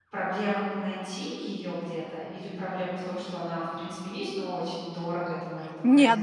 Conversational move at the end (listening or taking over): taking over